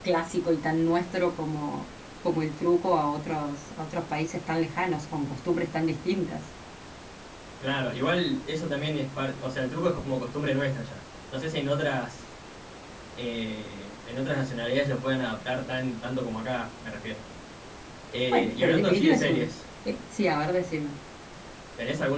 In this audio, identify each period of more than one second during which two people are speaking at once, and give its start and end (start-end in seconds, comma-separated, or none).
18.3-19.5